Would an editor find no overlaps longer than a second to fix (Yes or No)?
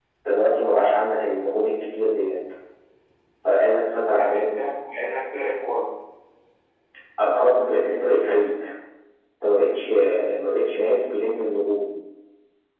Yes